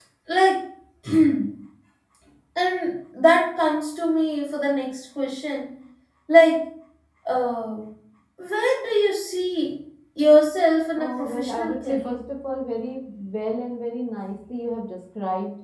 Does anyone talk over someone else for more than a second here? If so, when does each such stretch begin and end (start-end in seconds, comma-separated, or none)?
11.0-12.2